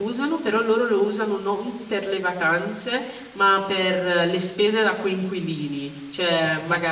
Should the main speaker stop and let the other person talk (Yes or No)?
No